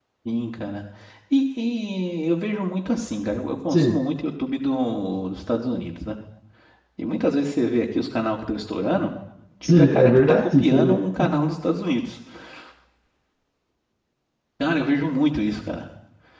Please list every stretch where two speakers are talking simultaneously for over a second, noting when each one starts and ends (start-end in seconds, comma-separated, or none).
9.6-11.0